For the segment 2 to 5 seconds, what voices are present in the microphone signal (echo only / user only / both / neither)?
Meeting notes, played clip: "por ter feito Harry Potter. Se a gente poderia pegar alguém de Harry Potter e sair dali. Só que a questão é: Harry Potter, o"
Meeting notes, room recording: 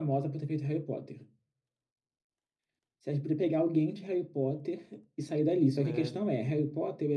echo only